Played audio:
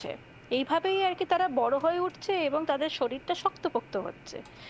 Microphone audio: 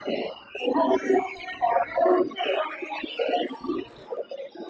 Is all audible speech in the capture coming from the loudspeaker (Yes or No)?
Yes